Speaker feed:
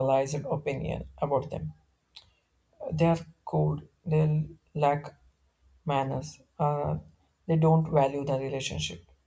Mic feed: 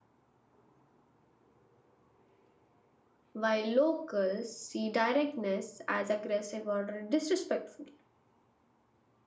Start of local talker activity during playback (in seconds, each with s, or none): 3.3 s